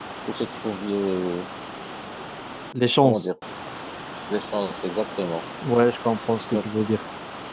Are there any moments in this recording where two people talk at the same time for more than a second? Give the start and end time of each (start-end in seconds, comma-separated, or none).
none